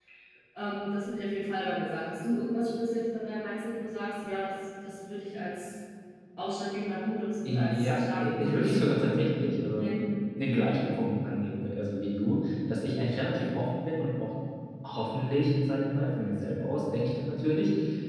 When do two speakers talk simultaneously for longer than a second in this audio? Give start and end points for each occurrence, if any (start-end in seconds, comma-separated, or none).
7.4-8.8